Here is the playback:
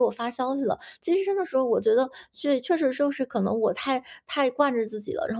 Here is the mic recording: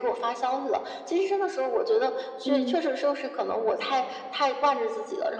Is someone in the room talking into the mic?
Yes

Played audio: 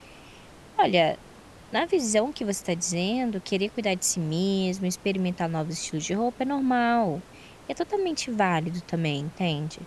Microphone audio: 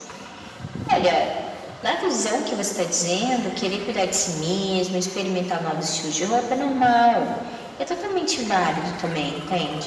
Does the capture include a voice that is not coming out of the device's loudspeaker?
No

